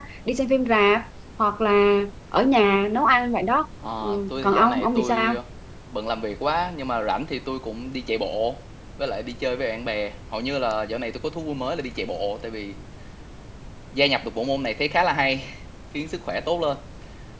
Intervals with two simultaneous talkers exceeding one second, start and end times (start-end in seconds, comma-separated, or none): 4.0-5.3